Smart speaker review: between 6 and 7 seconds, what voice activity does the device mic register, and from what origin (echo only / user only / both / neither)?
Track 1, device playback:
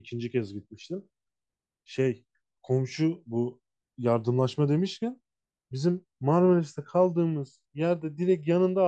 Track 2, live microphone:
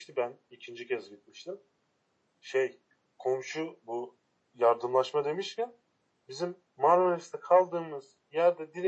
echo only